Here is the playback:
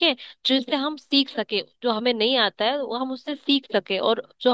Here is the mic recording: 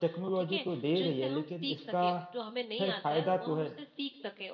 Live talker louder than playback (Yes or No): Yes